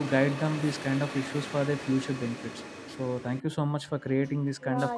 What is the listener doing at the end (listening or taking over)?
taking over